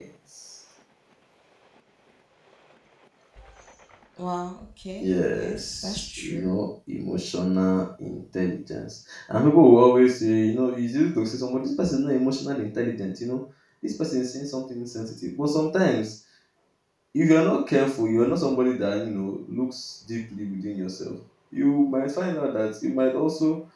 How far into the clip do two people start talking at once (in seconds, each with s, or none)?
5.0 s